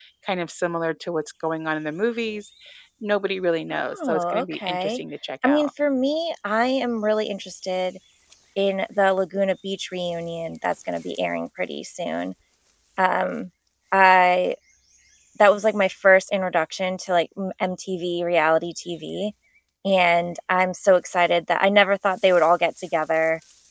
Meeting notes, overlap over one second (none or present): present